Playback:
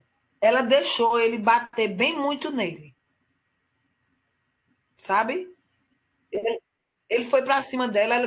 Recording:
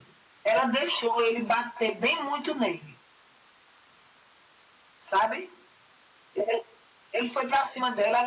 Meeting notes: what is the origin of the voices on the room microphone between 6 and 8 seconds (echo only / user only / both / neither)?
echo only